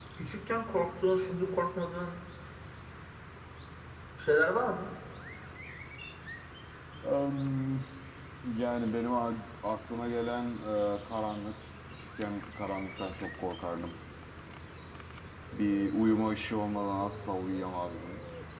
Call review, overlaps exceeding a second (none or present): none